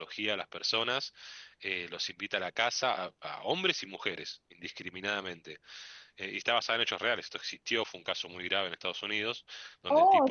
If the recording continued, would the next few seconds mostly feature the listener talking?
Yes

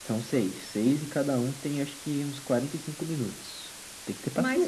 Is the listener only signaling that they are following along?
No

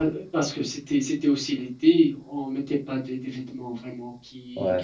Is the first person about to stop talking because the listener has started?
No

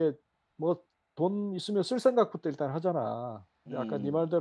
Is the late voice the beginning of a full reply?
No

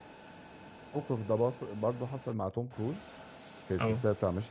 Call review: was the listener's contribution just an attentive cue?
Yes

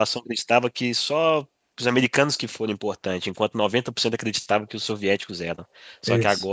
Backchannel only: Yes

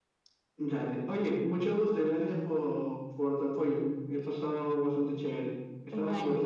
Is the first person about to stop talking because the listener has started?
Yes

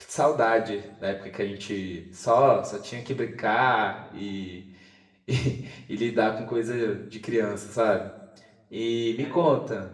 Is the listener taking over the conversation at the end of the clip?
No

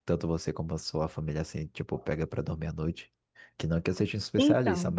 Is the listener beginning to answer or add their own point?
No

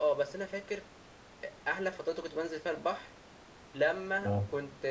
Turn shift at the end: No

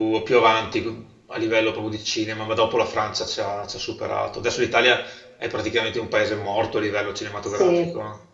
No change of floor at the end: No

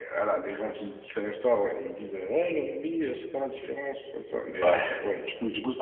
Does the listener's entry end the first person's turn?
No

